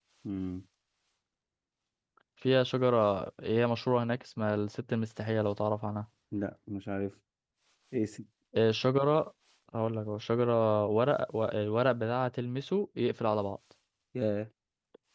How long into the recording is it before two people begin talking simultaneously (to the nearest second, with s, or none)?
none